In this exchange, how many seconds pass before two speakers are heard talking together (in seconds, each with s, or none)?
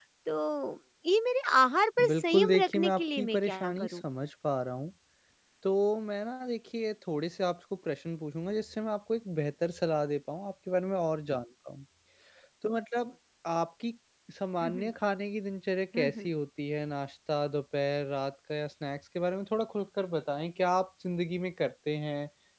2.0 s